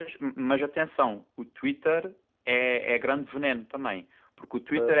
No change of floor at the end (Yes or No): Yes